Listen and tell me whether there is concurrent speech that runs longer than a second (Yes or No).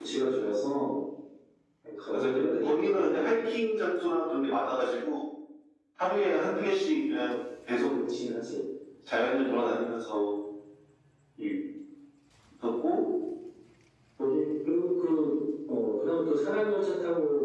Yes